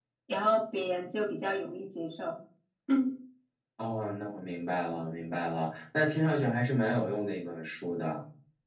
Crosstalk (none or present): none